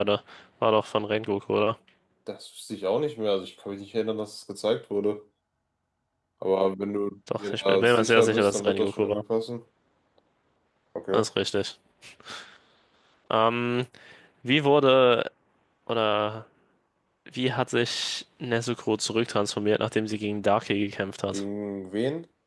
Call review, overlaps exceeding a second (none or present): present